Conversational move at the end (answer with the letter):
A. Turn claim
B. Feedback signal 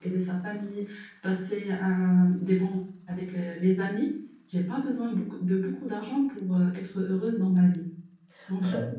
B